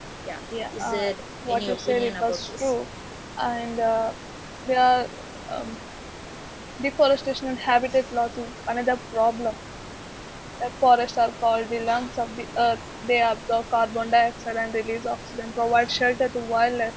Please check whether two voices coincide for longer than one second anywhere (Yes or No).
Yes